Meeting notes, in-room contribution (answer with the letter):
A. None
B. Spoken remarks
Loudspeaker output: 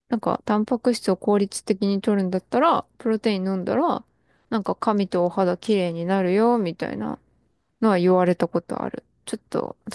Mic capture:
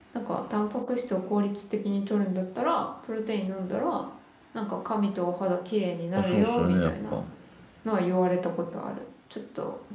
B